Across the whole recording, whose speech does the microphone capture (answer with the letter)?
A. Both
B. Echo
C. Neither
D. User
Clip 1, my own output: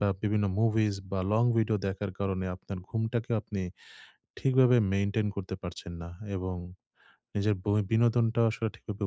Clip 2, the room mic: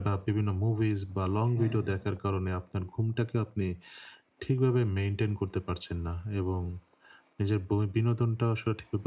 A